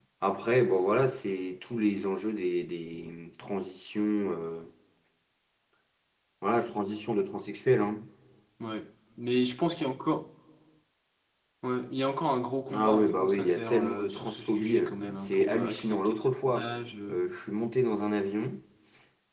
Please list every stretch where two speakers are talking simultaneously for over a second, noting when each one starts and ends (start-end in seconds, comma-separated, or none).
12.7-16.7